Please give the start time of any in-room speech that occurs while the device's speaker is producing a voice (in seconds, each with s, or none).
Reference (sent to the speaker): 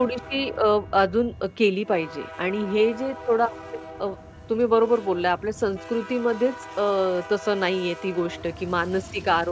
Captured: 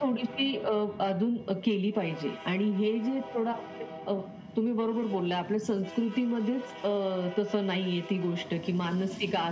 none